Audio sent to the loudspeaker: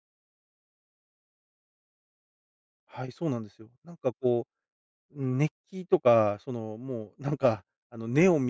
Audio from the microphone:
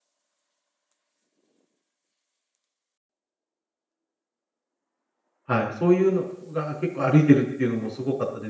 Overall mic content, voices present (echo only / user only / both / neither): user only